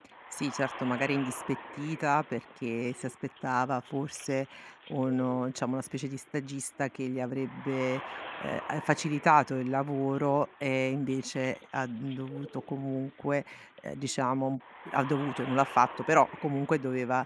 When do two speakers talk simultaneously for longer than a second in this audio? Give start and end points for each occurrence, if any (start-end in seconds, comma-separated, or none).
none